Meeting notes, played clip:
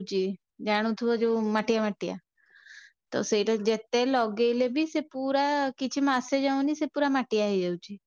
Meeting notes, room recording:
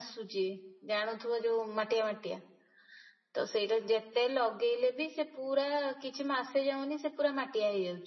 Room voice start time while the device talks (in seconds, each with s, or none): none